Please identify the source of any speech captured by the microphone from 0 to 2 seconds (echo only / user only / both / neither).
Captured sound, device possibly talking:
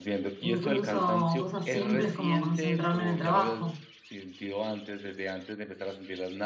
both